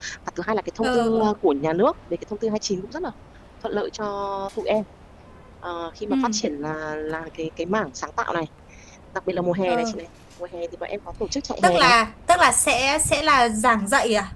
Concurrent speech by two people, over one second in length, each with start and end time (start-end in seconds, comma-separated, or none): none